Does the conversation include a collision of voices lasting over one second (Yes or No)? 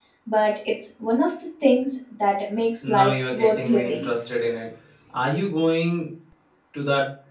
Yes